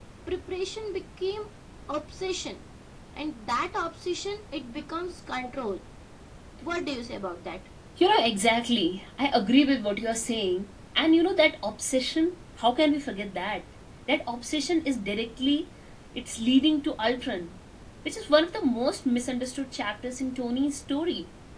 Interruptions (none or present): none